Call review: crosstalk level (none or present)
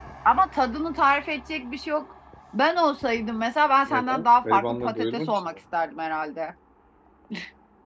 present